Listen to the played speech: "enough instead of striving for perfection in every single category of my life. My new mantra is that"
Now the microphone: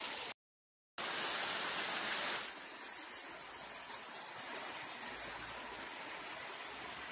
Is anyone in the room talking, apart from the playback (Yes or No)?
No